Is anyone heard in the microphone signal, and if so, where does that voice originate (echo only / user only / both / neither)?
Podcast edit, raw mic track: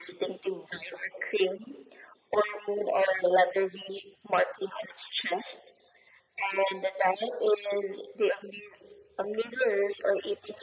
echo only